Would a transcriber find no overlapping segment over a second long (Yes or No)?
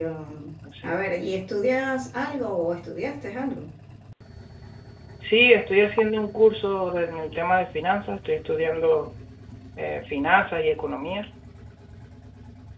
Yes